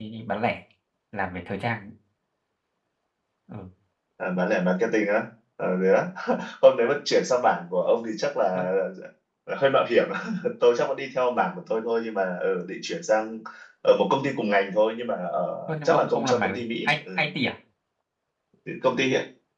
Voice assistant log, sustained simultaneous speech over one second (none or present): present